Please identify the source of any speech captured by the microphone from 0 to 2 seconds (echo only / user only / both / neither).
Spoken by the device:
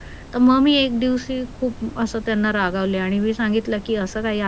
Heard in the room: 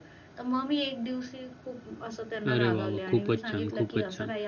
echo only